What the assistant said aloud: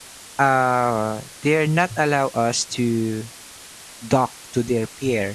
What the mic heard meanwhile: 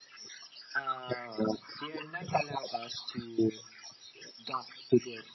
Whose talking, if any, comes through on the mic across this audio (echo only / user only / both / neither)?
echo only